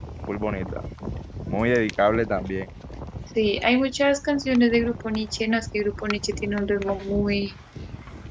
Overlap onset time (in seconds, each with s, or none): none